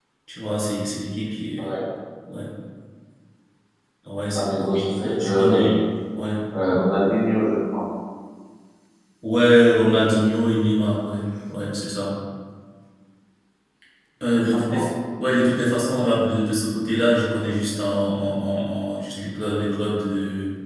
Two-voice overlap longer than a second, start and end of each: 4.3-5.7

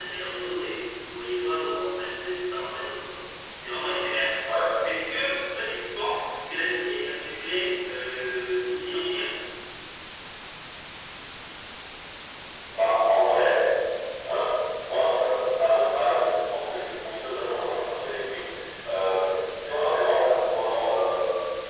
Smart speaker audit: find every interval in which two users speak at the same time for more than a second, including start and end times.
none

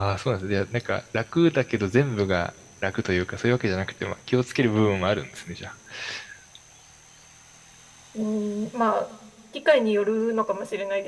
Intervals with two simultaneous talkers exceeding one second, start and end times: none

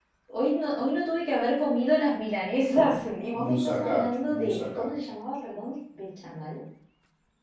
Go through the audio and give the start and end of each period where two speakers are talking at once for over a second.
3.3-4.9

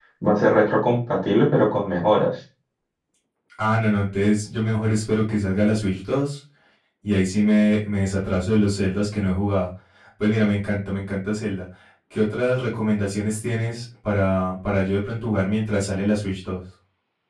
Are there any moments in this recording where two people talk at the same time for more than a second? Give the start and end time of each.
none

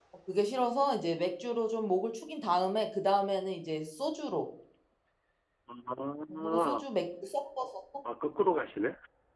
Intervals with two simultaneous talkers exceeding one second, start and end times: none

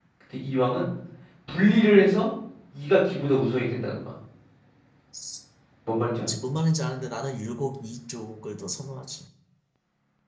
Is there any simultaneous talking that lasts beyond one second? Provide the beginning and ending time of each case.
none

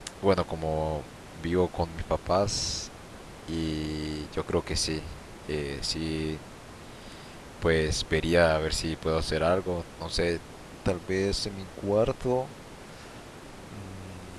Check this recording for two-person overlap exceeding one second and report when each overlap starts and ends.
none

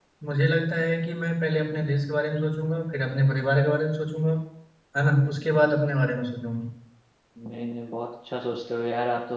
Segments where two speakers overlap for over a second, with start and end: none

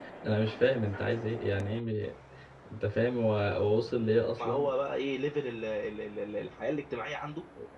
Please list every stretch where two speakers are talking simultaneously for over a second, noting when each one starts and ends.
none

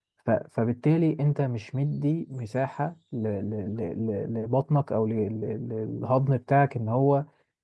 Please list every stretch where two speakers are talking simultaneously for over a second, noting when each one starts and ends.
none

